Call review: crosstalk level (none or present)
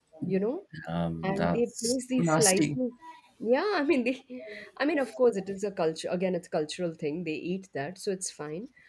present